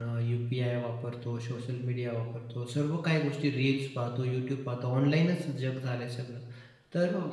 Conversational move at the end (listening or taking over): listening